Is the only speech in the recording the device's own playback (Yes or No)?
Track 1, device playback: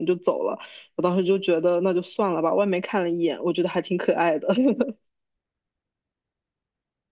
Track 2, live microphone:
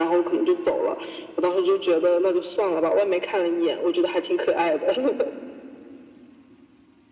Yes